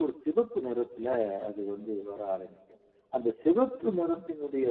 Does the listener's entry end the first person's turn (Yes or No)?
No